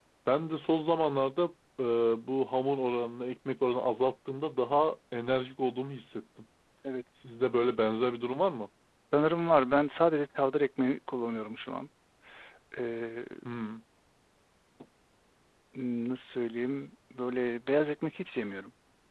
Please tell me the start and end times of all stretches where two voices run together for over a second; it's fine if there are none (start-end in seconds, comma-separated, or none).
none